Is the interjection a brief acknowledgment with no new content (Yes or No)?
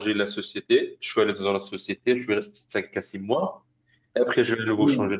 Yes